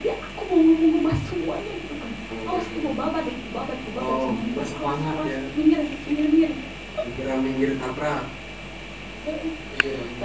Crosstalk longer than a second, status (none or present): present